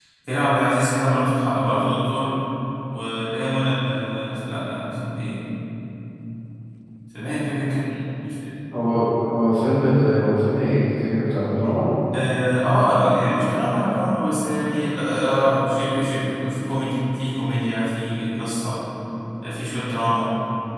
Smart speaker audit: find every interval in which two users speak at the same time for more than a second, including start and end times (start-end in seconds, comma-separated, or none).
none